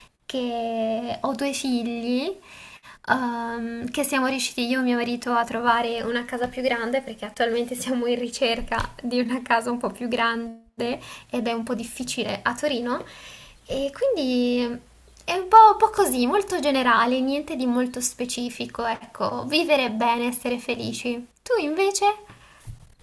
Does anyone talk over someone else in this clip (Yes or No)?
No